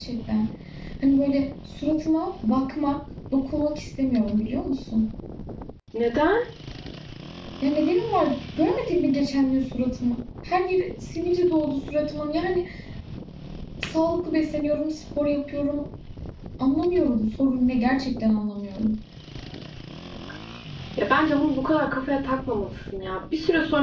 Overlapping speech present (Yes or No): No